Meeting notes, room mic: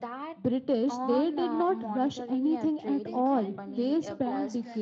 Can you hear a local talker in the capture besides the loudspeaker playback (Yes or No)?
Yes